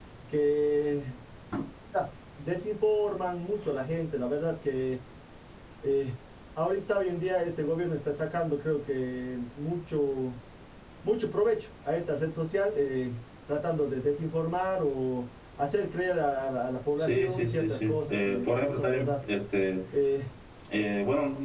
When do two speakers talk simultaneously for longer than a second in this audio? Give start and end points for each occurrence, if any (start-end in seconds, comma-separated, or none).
17.0-19.2